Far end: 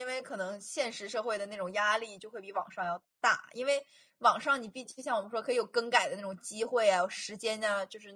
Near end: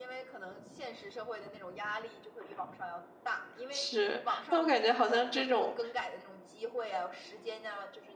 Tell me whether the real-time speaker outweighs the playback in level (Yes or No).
Yes